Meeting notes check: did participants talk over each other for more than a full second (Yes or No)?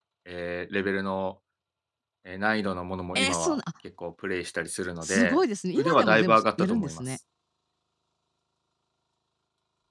Yes